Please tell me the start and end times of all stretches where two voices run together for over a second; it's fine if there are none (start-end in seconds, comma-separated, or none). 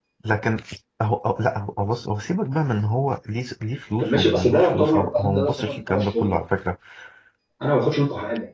4.0-6.4